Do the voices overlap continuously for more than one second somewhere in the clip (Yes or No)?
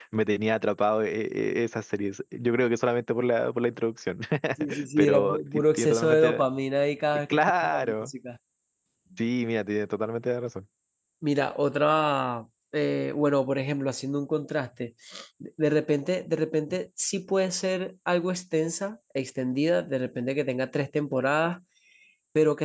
Yes